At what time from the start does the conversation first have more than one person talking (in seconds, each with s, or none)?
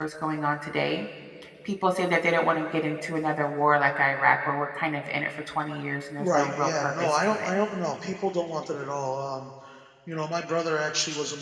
6.2 s